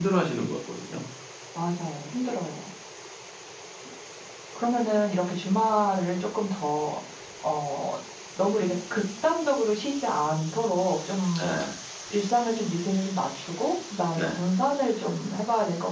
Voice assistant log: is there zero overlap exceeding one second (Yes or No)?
Yes